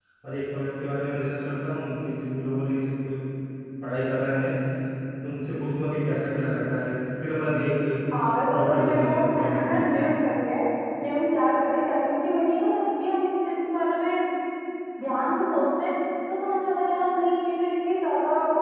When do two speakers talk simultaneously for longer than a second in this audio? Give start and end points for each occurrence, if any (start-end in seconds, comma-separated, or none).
8.5-9.8